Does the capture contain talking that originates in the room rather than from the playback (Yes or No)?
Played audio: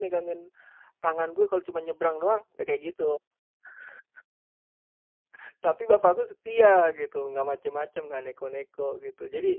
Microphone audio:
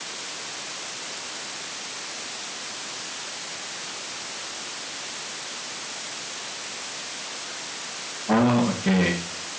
Yes